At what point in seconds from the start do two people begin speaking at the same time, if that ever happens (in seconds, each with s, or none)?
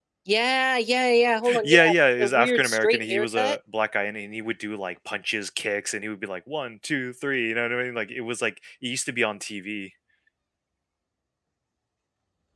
1.4 s